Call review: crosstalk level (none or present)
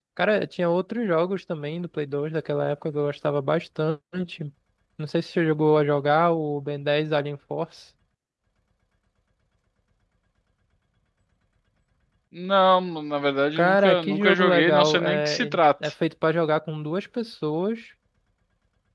present